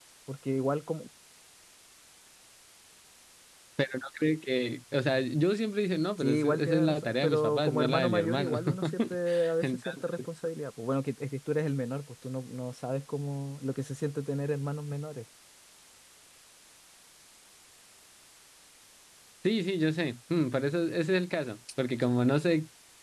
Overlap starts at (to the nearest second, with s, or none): 6 s